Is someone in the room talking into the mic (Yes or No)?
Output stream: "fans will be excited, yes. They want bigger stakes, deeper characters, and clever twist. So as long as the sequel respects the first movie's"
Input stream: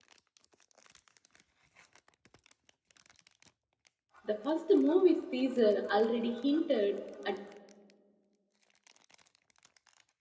Yes